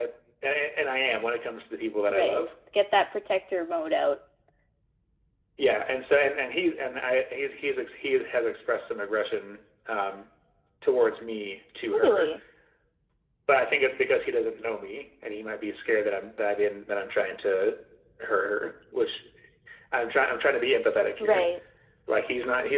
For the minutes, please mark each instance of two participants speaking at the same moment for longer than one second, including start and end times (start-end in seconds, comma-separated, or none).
none